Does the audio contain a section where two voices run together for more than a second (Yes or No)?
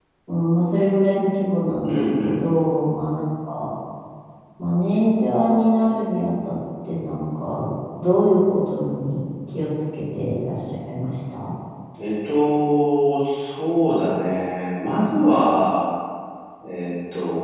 No